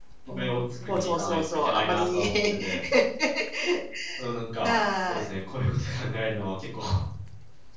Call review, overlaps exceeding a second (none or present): present